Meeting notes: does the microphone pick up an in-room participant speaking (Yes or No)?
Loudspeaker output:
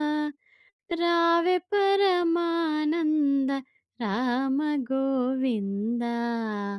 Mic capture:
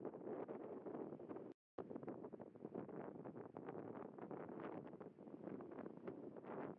No